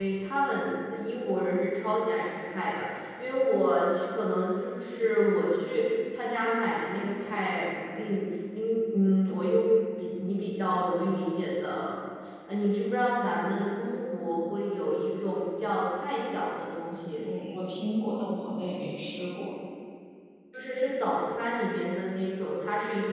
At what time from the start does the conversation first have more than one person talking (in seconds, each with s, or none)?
none